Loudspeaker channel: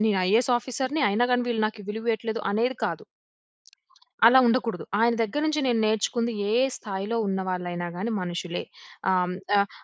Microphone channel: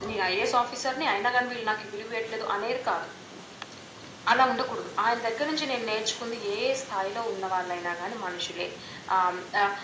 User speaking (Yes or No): No